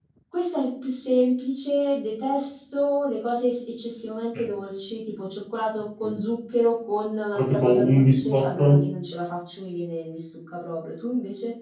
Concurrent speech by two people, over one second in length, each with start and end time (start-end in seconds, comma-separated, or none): 7.3-8.9